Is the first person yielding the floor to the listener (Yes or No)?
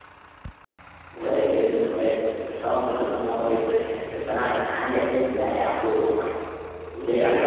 Yes